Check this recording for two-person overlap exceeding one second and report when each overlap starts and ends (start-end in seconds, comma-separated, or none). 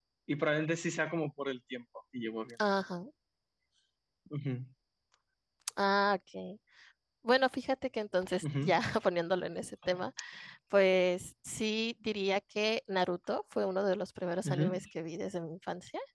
none